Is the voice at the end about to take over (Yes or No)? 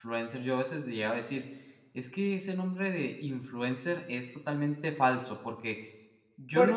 No